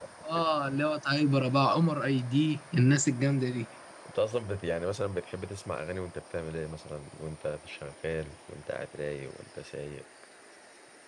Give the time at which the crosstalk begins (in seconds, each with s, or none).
none